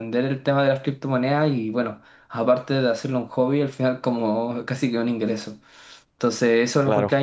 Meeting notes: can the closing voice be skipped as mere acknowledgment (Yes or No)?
Yes